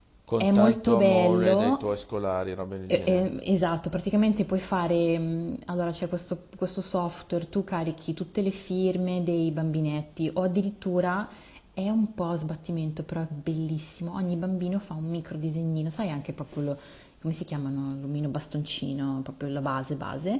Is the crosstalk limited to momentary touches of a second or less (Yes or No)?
No